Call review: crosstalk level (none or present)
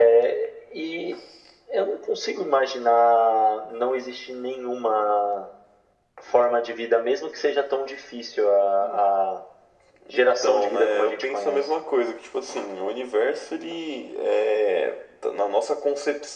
present